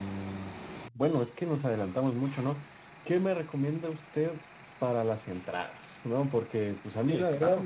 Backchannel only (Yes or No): Yes